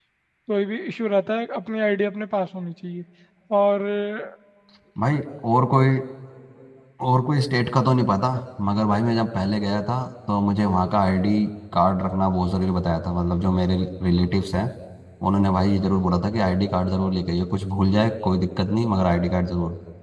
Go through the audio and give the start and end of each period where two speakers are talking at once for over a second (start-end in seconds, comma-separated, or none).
none